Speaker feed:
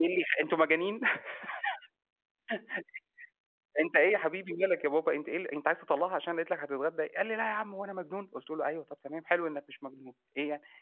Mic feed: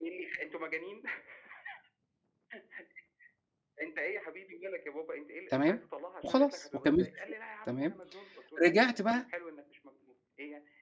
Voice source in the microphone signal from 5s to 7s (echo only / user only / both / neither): both